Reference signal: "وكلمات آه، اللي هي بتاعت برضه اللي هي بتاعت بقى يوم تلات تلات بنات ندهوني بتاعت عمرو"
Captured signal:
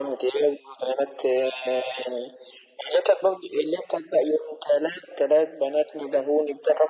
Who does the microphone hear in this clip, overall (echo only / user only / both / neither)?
echo only